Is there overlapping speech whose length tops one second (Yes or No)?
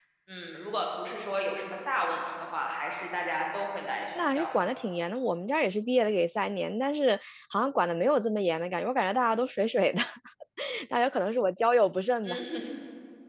No